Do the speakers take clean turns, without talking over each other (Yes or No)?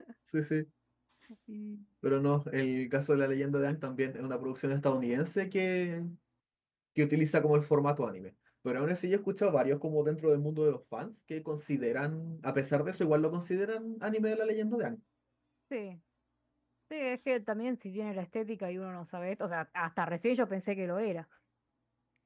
Yes